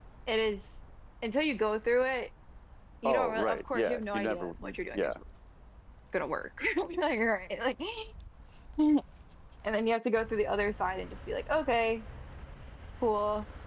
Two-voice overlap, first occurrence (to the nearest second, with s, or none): 3 s